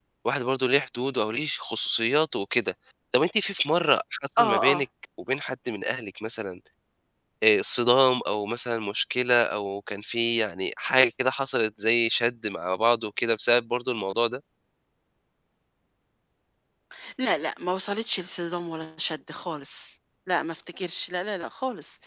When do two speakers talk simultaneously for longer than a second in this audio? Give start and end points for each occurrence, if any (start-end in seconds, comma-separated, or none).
none